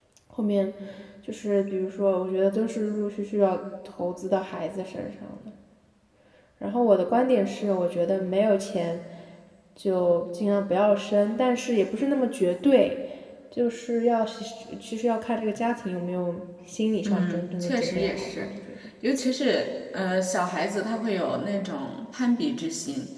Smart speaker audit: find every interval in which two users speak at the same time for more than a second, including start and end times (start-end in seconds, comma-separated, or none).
17.0-18.5